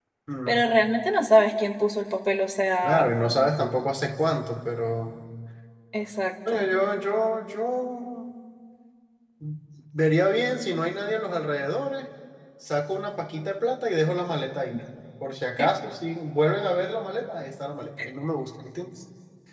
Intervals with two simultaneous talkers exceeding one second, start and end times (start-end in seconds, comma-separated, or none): none